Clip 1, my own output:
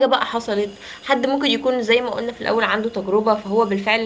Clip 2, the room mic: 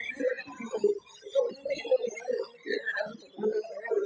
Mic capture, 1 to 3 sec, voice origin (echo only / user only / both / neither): echo only